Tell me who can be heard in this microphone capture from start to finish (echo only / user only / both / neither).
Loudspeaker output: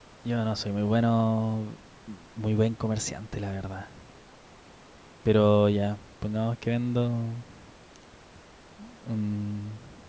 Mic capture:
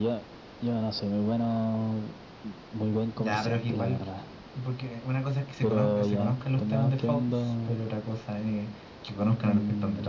both